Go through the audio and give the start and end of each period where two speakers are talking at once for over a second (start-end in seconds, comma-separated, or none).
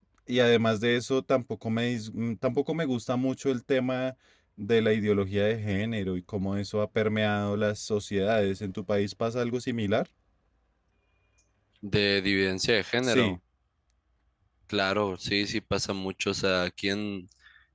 none